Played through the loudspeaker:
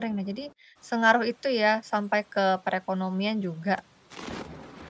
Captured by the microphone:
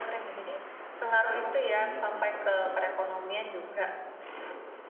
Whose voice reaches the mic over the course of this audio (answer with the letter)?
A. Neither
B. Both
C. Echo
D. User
B